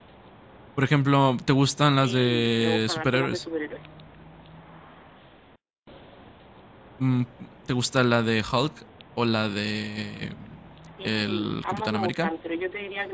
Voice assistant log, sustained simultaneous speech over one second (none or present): present